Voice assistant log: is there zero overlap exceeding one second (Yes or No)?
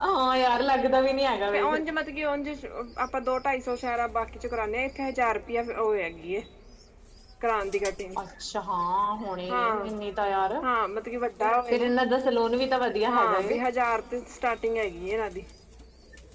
Yes